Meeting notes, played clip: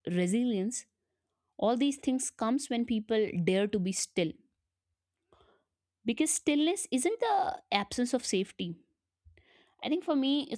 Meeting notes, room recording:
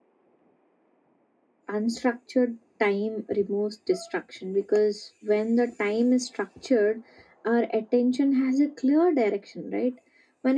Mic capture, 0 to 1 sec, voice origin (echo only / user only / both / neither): neither